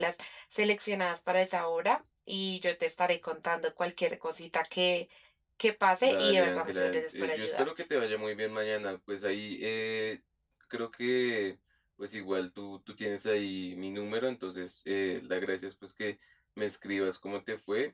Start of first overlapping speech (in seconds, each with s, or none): 6.0 s